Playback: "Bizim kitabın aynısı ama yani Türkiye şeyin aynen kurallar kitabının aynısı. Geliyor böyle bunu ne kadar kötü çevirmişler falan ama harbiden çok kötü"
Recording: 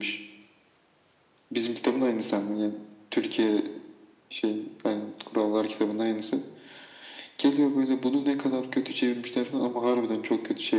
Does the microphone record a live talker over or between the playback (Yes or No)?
No